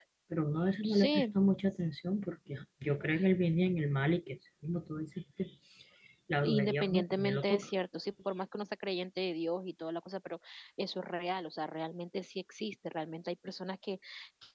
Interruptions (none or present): present